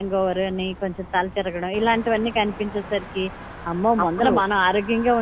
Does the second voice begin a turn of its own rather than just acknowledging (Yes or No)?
No